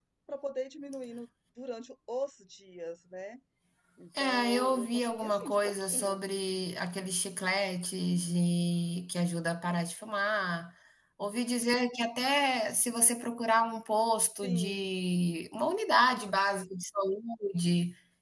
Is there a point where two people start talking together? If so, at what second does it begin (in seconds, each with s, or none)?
4.2 s